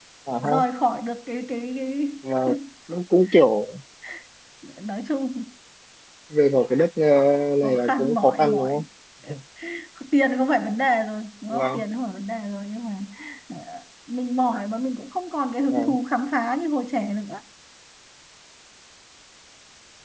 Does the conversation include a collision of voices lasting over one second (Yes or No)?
Yes